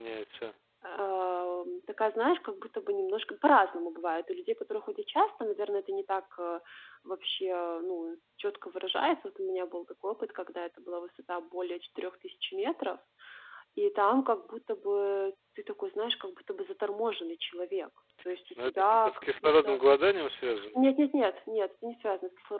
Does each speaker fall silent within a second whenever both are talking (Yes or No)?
No